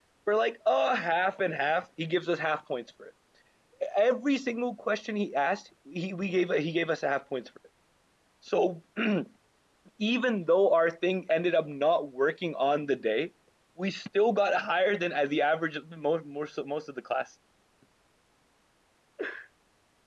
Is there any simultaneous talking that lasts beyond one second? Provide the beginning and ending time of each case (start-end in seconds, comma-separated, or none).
none